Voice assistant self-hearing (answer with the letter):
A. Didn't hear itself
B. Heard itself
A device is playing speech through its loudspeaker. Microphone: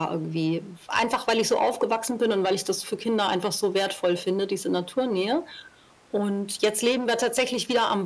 B